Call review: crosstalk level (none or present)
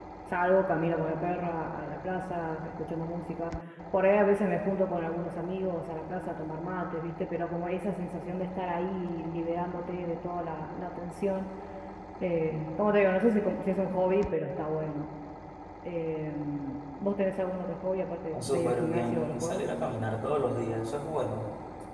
present